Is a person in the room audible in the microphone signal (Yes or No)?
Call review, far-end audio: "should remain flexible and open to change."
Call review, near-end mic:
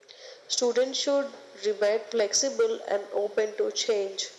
No